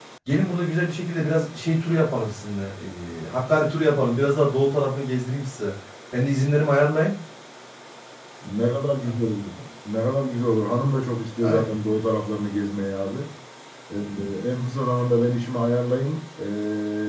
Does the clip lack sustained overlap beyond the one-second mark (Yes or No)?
Yes